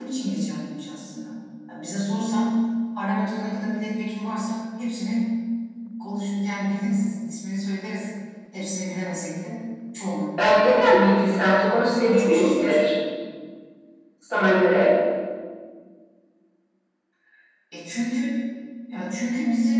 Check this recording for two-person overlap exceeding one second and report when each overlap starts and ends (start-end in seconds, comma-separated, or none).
10.8-12.9